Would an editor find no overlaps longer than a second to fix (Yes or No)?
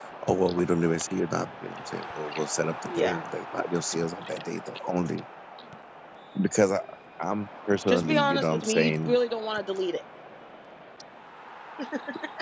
No